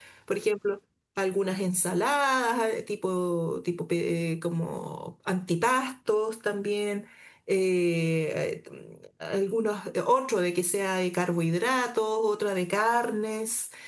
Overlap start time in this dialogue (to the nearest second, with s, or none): none